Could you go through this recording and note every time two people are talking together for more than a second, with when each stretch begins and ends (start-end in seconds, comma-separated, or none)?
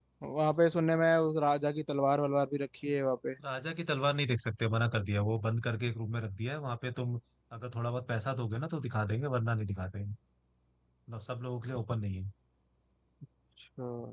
none